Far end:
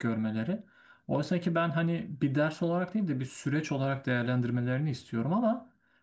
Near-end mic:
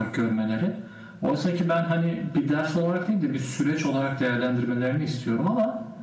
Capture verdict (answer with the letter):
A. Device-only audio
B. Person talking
A